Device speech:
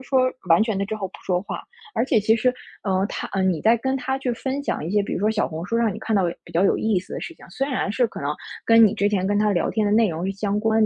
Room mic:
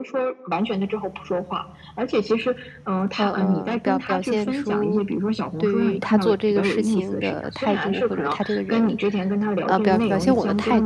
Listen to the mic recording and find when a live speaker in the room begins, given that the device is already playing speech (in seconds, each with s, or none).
3.2 s